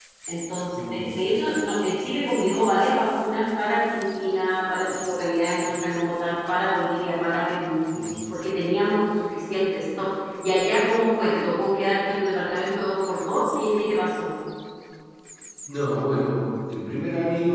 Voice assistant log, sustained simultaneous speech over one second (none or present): none